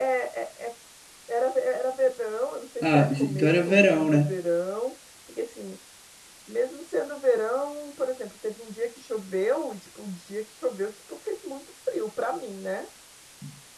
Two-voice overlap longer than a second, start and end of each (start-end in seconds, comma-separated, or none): 2.9-4.3